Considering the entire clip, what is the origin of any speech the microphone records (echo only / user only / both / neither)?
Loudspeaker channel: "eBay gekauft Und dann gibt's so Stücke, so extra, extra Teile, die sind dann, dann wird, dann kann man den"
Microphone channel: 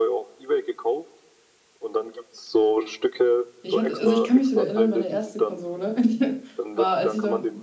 both